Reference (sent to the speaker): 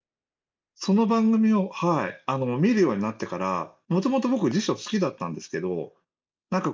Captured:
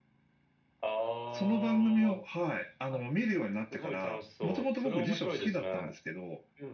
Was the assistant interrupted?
Yes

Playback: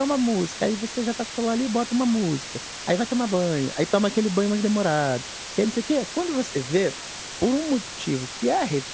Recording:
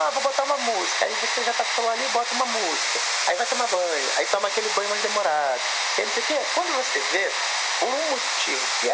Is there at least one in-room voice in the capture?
No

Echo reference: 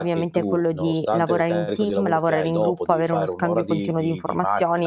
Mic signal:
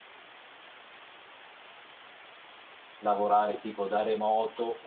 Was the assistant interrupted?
Yes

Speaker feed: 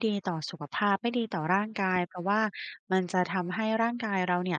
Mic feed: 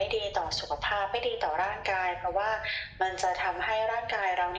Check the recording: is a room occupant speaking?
No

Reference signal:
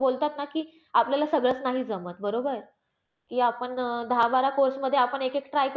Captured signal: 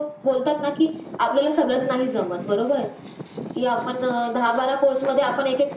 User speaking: No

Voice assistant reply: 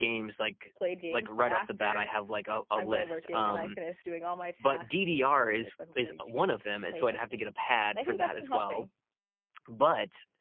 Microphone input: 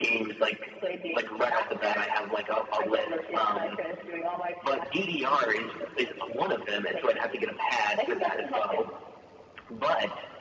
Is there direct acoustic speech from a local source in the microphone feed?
No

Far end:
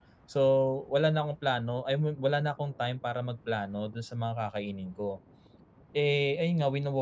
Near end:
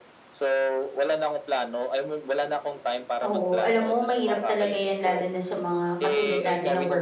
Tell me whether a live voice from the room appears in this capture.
Yes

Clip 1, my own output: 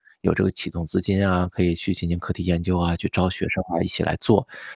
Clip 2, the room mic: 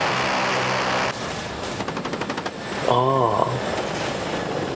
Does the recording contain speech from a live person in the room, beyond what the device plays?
Yes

